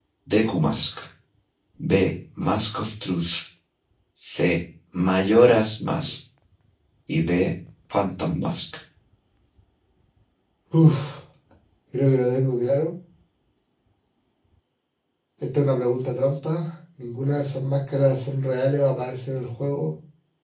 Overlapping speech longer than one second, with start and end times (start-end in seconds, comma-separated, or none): none